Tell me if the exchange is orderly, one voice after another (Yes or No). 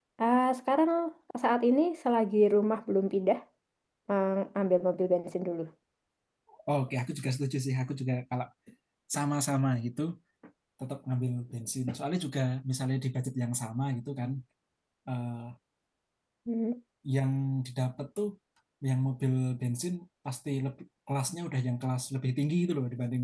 Yes